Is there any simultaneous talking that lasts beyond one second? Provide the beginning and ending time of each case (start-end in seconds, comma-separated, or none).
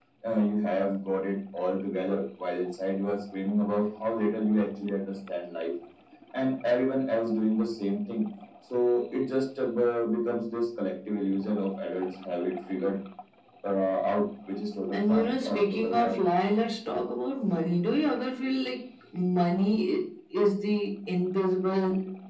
14.9-16.1